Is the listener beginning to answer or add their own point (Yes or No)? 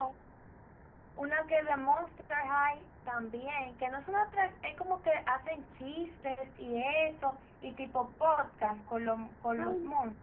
Yes